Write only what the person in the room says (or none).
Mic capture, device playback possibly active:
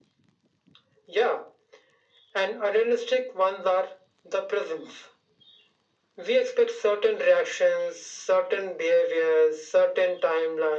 none